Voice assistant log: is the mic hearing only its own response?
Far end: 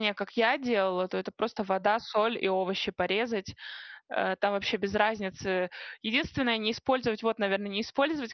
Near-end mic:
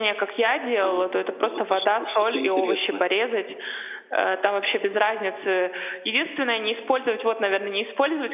No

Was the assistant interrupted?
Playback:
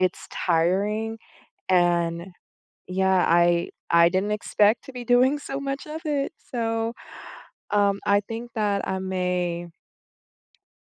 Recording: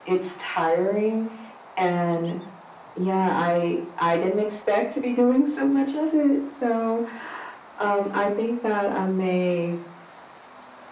No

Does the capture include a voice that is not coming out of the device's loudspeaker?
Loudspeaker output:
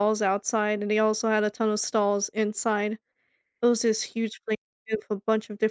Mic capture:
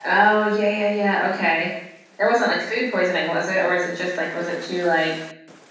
Yes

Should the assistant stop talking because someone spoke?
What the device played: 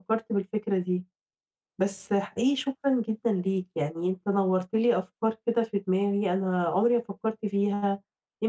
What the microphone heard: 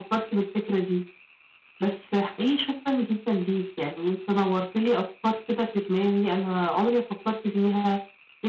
No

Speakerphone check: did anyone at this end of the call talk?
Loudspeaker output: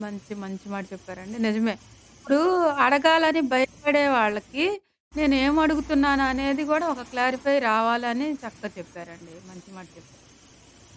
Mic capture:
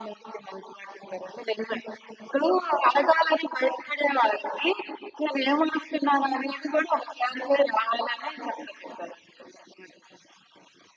No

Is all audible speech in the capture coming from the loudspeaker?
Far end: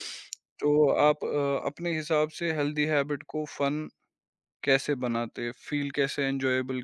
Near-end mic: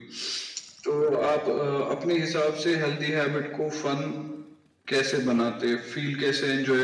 Yes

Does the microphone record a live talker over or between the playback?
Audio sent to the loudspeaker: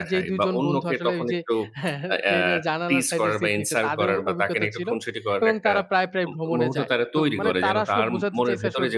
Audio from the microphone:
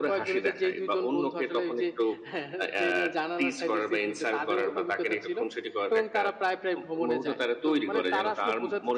No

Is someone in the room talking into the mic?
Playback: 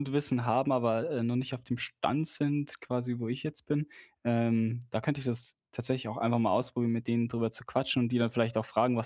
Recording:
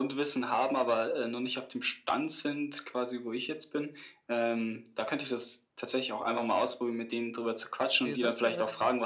Yes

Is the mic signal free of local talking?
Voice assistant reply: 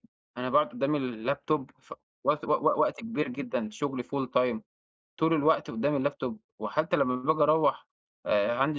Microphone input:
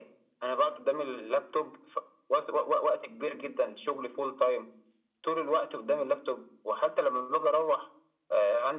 Yes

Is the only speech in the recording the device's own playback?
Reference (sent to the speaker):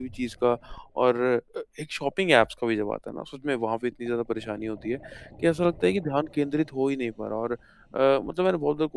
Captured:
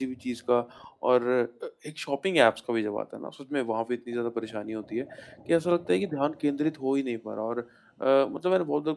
Yes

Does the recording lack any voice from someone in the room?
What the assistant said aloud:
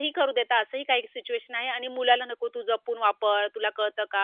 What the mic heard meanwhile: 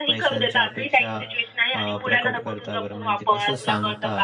No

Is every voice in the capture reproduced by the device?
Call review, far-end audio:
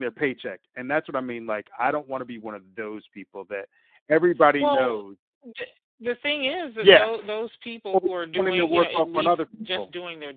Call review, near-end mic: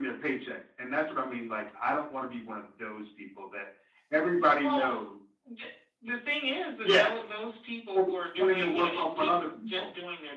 Yes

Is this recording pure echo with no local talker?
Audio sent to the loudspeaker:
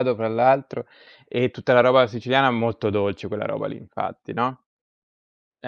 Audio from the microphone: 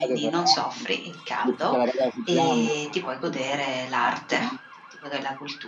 No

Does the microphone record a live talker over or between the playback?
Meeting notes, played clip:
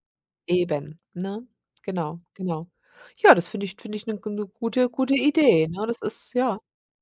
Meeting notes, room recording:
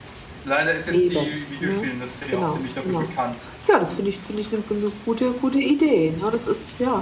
Yes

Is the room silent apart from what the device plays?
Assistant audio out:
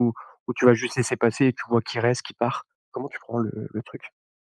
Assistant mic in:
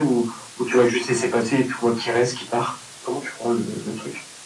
Yes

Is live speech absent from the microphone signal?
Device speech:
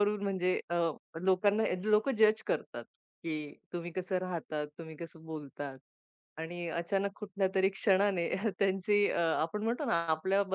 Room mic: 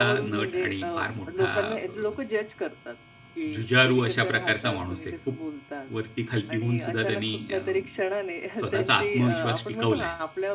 No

